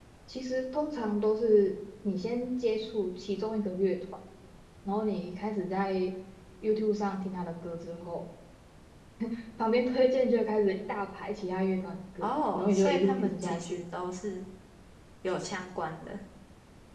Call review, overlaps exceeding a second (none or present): present